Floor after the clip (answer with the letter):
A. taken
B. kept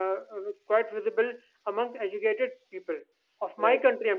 B